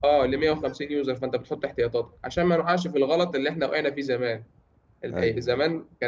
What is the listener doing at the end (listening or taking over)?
listening